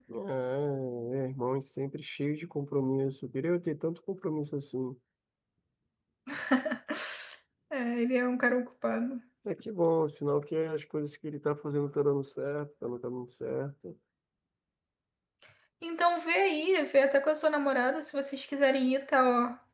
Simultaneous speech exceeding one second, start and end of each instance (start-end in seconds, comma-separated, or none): none